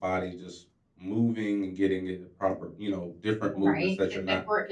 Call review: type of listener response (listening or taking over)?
taking over